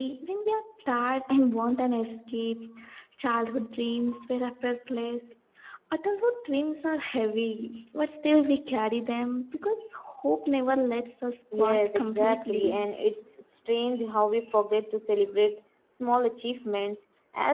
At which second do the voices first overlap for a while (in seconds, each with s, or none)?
11.5 s